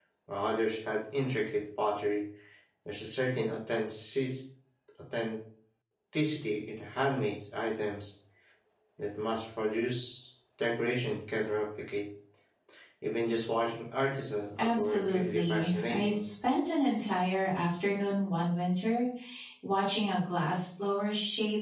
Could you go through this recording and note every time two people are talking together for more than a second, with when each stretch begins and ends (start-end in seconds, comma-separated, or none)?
14.6-16.2